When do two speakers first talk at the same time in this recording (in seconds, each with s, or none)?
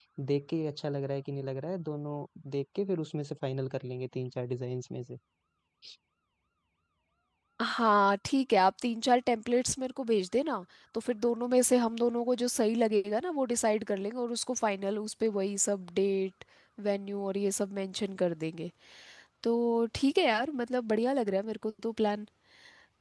none